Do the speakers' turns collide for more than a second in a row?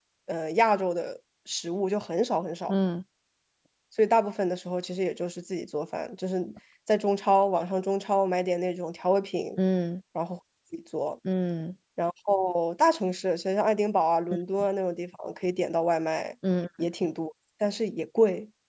No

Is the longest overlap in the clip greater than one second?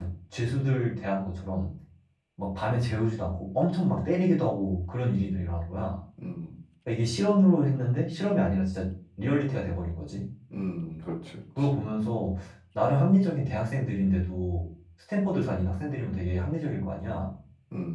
No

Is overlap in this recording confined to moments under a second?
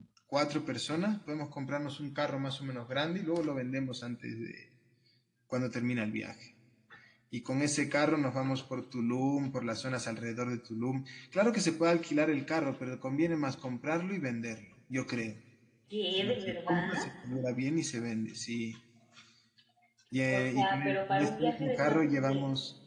No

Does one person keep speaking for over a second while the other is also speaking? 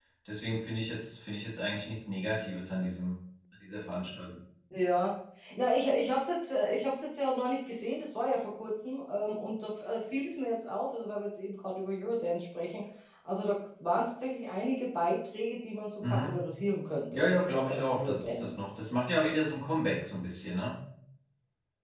Yes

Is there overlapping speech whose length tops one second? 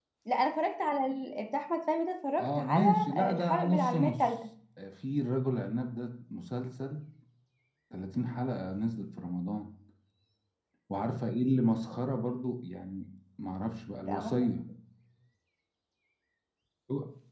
Yes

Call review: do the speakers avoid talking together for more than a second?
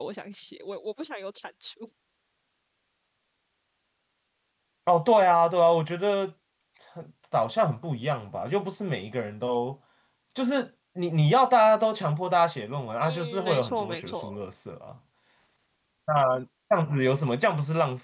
No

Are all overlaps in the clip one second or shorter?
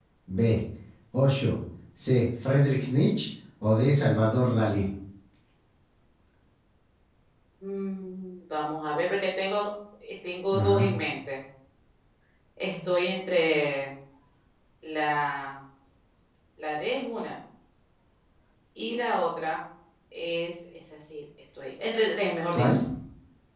Yes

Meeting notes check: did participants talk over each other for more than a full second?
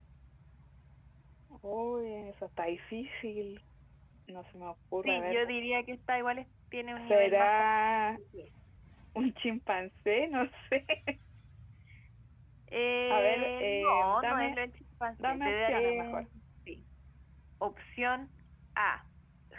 Yes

